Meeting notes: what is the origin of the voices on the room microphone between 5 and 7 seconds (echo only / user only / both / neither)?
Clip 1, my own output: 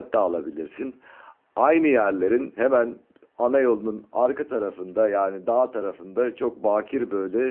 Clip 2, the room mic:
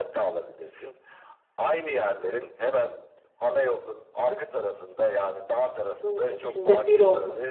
both